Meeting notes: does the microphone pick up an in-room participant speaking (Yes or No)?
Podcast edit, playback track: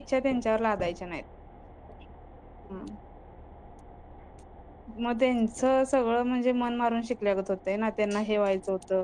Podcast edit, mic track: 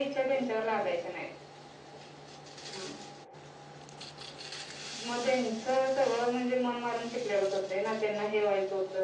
No